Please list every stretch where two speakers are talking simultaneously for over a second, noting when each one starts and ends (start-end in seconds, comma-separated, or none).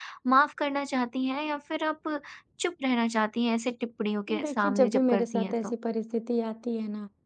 4.4-5.7